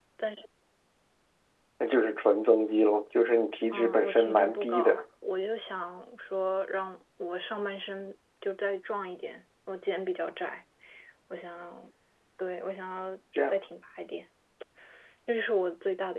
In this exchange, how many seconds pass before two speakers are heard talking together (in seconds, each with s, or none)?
3.7 s